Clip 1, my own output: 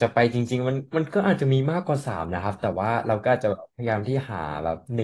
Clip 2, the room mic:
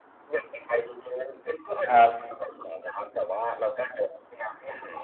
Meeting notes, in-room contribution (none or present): present